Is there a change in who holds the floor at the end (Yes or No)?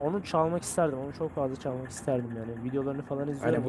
Yes